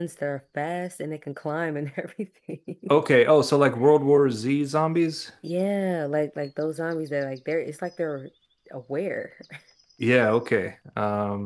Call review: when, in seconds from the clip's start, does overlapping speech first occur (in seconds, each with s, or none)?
none